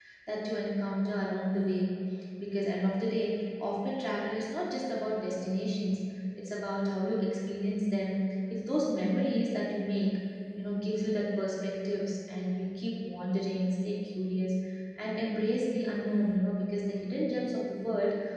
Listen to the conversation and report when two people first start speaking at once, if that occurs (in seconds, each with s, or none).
none